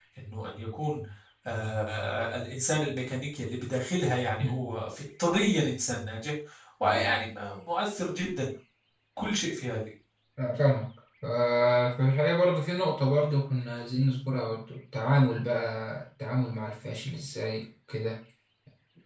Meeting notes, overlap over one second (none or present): none